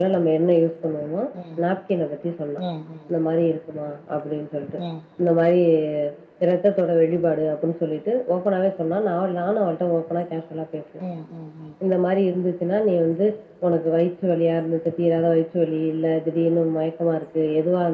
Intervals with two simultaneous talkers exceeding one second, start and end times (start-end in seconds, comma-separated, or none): none